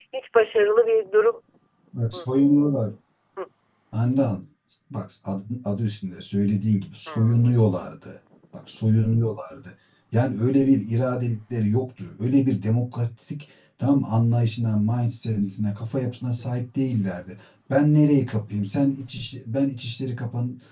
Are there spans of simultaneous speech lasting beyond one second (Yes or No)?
No